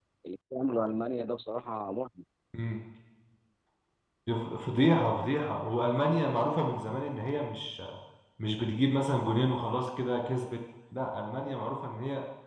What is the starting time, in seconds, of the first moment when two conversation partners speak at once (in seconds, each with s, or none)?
none